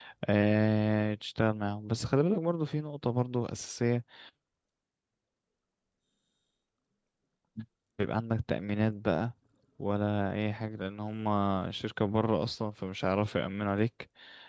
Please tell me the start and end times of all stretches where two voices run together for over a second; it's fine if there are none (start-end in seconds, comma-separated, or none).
none